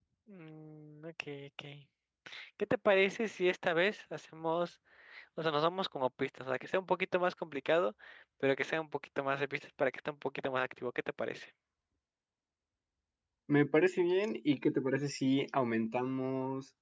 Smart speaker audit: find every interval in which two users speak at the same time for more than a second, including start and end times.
none

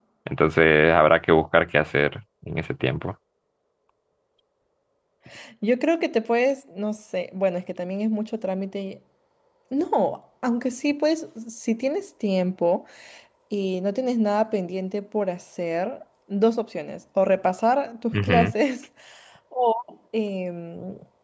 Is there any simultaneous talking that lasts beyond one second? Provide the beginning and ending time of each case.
none

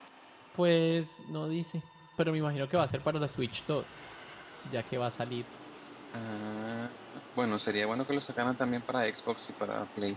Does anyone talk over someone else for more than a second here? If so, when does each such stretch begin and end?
none

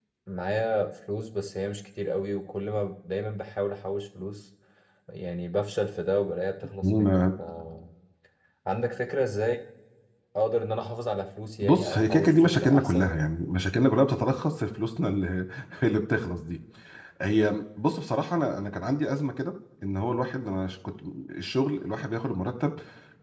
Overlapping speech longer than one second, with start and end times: 11.6-13.1

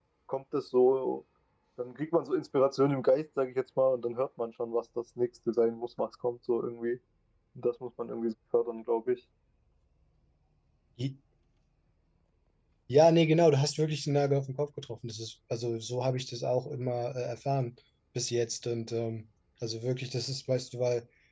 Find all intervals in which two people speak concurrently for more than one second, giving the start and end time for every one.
none

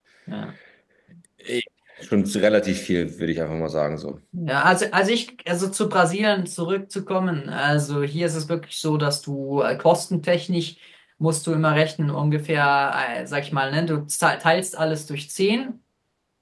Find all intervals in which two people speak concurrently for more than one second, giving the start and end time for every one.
none

